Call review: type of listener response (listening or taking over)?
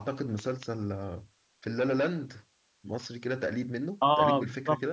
taking over